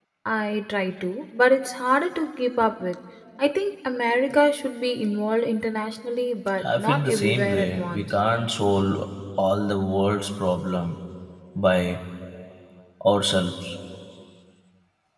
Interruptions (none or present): present